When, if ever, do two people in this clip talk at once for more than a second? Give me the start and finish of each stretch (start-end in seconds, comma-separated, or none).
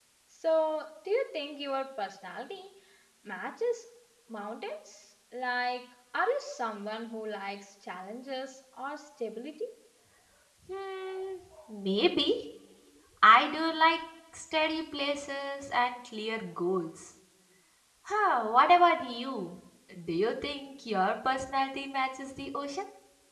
none